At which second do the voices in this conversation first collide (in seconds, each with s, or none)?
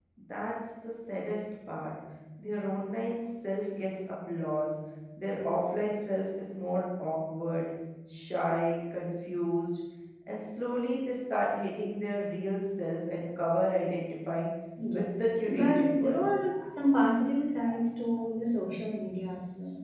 14.9 s